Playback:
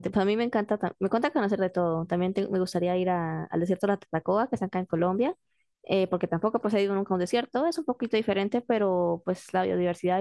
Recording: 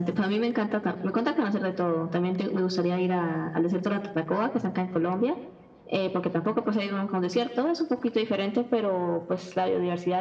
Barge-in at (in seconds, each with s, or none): none